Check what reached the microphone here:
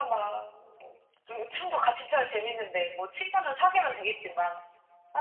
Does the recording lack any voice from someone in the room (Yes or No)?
Yes